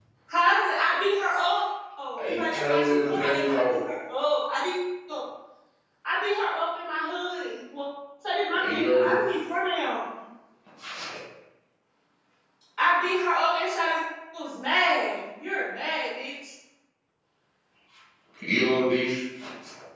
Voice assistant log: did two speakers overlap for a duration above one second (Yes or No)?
Yes